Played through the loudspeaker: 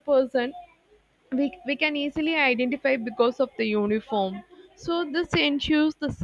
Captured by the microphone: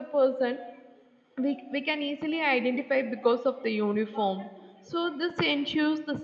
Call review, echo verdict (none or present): present